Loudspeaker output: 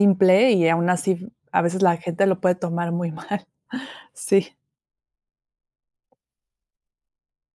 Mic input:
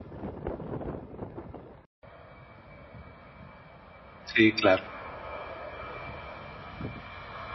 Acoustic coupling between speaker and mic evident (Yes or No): No